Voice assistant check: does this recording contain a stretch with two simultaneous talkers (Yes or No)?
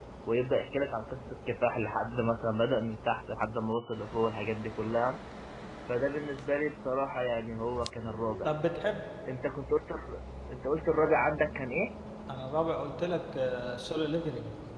No